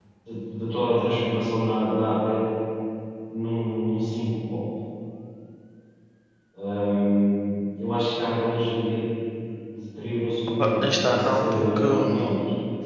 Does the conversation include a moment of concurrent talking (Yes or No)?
Yes